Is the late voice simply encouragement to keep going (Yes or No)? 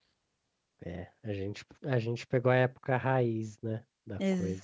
No